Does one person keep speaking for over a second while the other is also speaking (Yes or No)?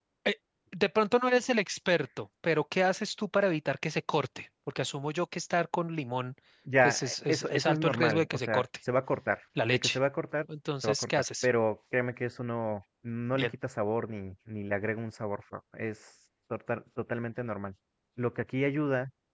Yes